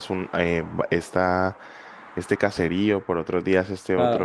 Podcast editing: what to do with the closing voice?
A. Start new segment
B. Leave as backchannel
A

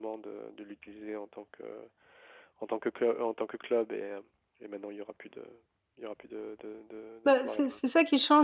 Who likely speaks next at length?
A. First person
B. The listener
B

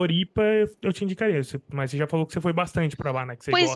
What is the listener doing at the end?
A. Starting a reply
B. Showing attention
A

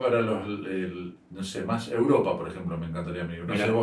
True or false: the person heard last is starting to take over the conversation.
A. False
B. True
A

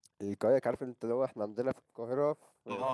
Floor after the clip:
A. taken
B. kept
A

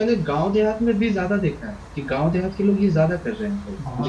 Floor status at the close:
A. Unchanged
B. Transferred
B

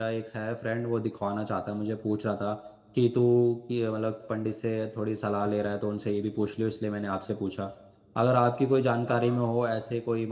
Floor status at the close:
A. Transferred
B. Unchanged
B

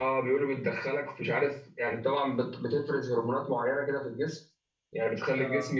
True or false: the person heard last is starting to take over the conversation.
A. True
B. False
B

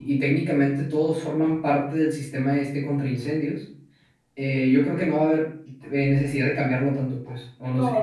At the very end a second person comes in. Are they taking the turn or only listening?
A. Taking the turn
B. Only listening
A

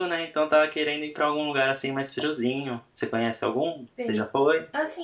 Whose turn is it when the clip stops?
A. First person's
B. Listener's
B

